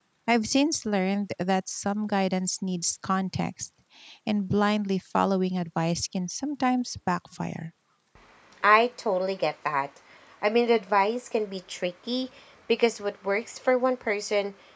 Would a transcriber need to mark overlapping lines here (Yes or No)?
No